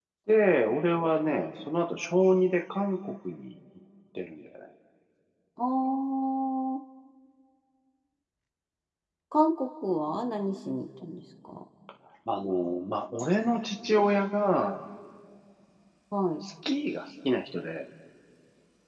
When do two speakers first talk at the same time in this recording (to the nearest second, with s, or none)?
none